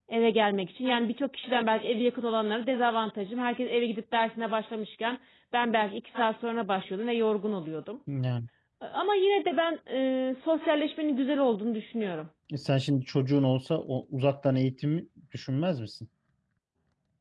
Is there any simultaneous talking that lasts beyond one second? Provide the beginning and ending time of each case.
none

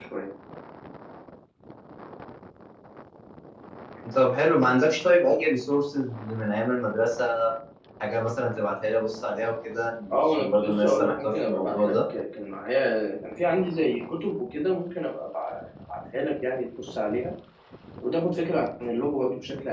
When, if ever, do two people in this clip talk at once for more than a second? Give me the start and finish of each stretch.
10.1-11.9

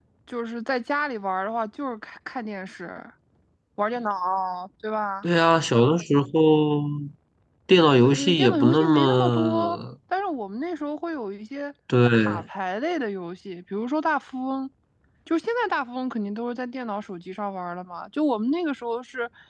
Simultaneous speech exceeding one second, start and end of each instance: 8.0-9.8

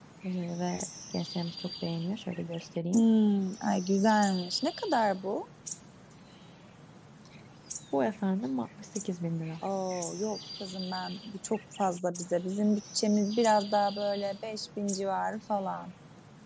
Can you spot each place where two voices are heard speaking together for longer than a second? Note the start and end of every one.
none

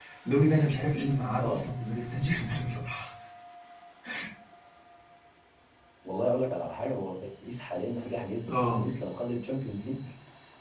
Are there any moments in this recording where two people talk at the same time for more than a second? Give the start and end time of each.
none

